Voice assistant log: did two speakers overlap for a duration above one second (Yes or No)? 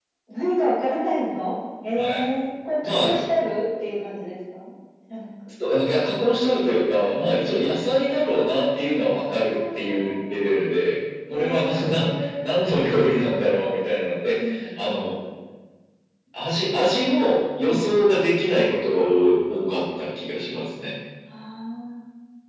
Yes